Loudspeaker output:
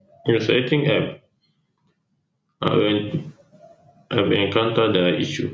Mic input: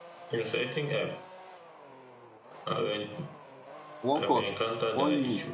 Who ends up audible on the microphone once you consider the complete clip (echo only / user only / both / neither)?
both